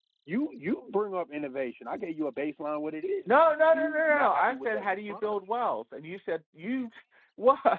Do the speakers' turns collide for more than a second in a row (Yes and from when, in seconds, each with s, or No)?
Yes, from 3.3 s